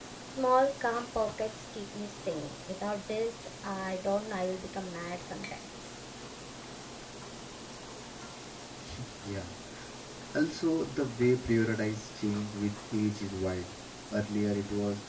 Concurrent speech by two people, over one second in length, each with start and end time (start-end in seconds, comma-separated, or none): none